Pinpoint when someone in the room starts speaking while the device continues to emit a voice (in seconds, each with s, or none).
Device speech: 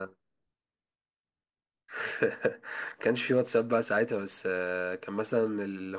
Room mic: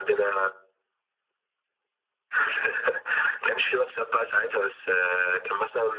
none